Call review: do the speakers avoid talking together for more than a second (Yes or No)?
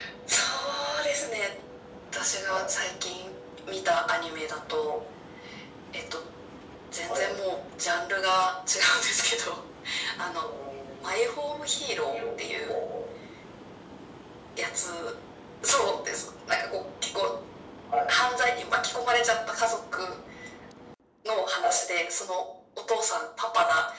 Yes